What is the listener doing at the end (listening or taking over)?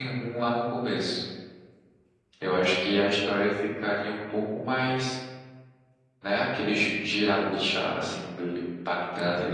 taking over